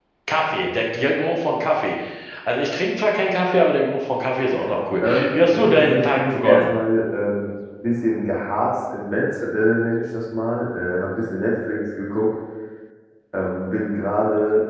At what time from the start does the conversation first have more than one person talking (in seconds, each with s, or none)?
5.0 s